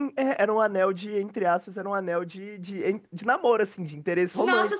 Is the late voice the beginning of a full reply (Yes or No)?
Yes